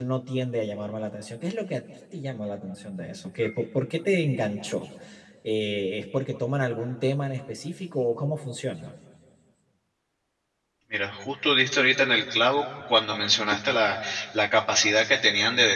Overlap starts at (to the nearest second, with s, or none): none